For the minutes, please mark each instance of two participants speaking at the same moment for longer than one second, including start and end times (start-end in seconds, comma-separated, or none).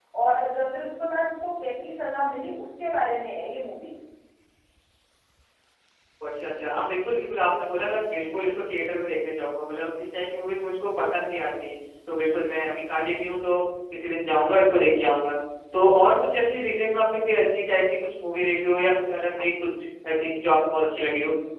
none